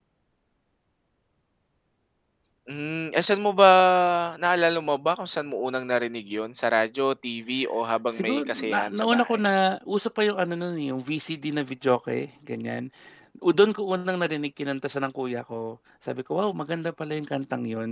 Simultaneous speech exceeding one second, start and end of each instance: 8.1-9.4

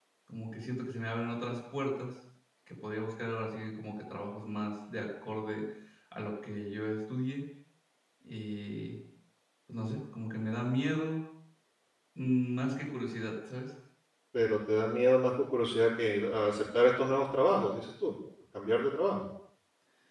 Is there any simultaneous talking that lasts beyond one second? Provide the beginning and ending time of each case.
none

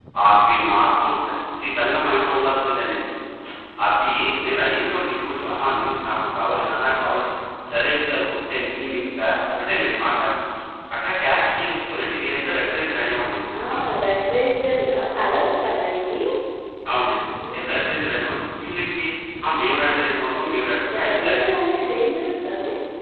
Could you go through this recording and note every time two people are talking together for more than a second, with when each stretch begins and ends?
none

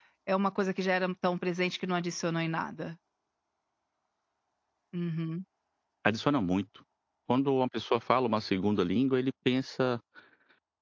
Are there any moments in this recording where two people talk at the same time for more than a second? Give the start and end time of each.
none

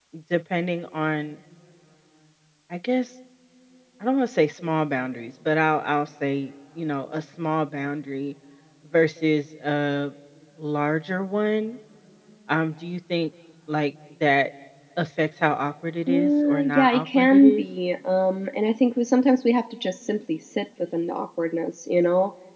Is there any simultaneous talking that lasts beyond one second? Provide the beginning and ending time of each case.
16.1-17.6

